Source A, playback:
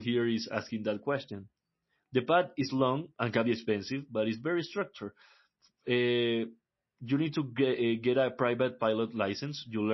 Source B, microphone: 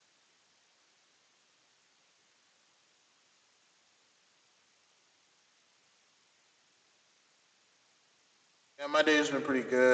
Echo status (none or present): none